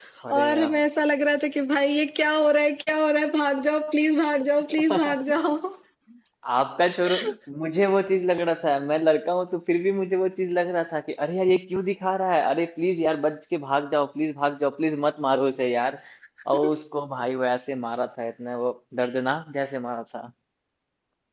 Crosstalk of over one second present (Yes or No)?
No